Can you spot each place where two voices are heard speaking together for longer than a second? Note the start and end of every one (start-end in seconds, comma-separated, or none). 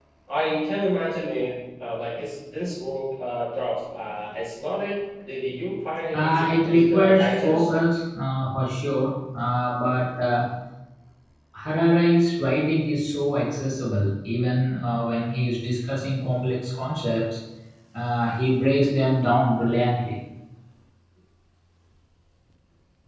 6.1-7.7